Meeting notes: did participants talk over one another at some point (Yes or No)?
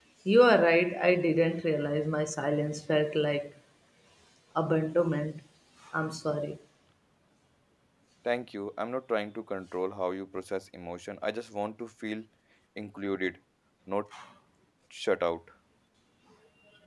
No